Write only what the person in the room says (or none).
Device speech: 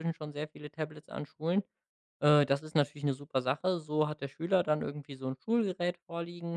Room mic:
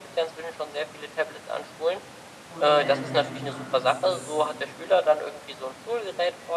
Und deiner Meinung nach ist das